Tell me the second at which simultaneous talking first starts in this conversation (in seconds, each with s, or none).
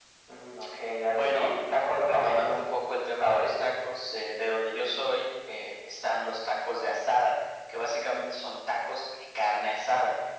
1.1 s